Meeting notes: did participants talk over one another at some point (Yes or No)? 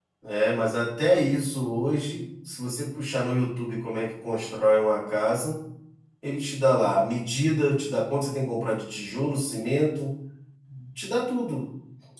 No